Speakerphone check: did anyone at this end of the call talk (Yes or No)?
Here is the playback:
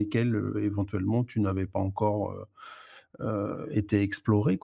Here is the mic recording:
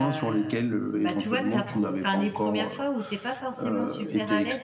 Yes